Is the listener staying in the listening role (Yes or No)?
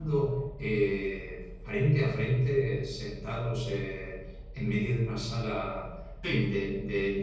Yes